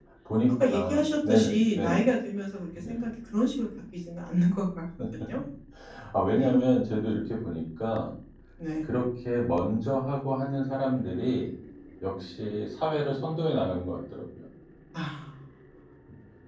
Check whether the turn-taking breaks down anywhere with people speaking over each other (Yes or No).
Yes